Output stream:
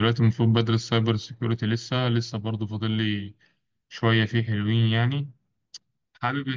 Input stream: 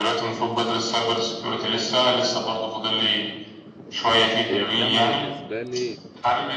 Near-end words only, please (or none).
هي الجامعة بالنسبة لي